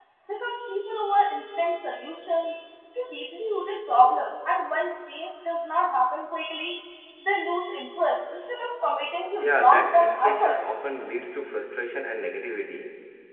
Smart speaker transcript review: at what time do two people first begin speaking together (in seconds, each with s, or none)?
9.4 s